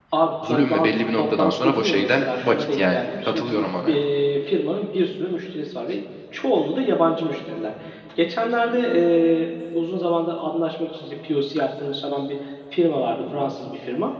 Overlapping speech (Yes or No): Yes